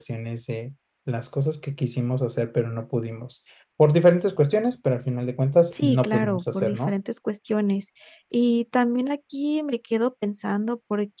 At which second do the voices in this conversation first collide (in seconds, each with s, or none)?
5.7 s